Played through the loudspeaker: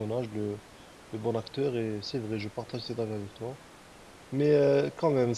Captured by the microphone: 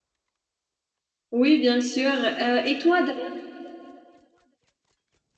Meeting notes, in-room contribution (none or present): present